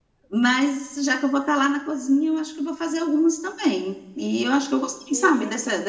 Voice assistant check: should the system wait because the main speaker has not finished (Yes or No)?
Yes